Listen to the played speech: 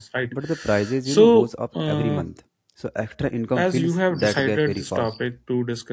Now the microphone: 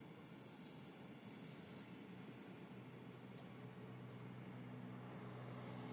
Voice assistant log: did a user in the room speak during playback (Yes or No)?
No